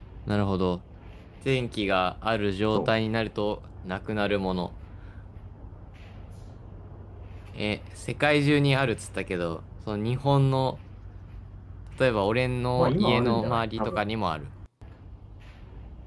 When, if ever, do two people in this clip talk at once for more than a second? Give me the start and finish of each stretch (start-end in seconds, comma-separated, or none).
12.8-14.0